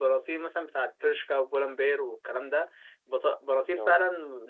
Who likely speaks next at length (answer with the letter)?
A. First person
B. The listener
A